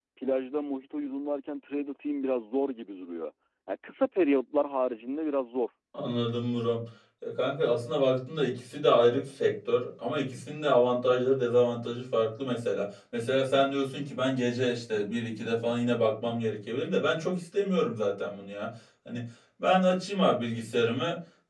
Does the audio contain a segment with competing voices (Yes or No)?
No